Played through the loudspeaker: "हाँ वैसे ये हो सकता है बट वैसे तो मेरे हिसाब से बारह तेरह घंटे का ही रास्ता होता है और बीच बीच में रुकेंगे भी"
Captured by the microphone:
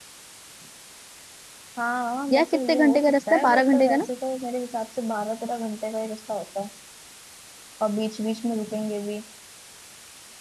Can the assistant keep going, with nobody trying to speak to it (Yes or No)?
No